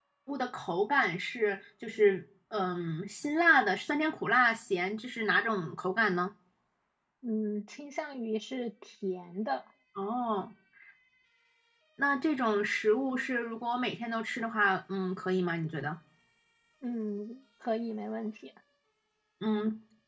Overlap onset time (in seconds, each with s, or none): none